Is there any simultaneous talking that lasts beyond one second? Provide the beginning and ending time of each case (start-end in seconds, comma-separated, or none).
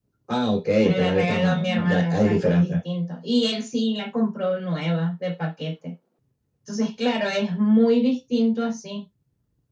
0.8-2.7